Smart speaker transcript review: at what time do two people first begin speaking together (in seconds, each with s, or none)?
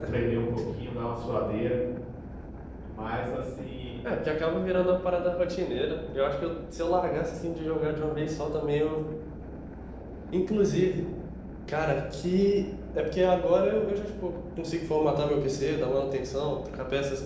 none